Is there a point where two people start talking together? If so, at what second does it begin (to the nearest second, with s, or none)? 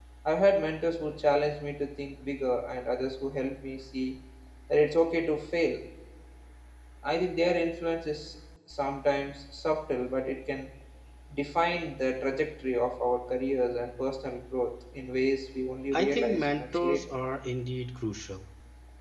16 s